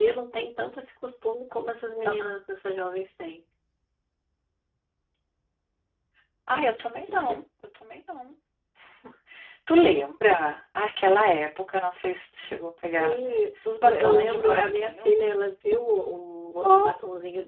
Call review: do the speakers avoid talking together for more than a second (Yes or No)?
No